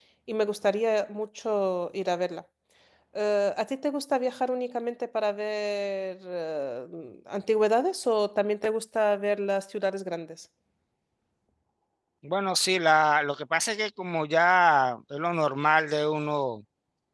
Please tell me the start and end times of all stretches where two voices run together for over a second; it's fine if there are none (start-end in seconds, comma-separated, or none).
none